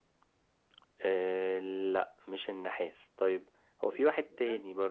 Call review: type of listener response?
listening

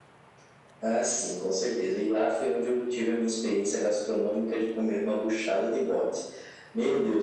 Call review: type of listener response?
listening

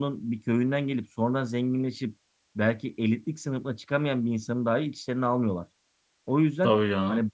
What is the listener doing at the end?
listening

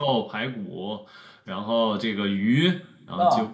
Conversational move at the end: listening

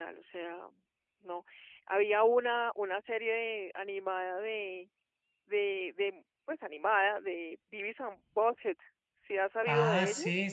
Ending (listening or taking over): taking over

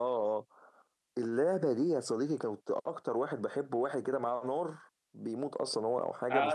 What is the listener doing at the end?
taking over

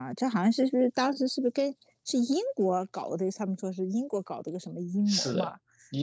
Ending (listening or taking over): taking over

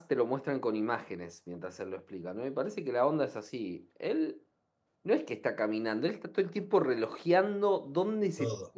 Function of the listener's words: listening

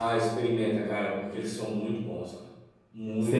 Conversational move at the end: taking over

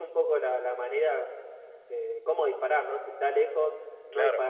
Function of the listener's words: listening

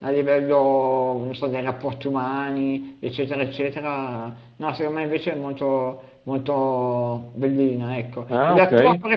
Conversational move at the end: listening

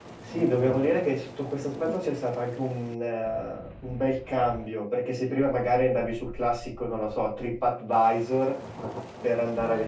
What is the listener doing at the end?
listening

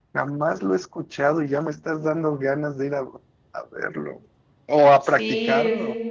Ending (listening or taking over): taking over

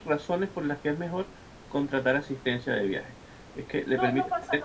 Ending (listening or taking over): taking over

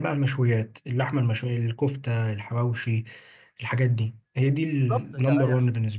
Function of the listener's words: taking over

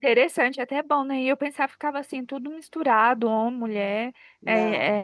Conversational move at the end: listening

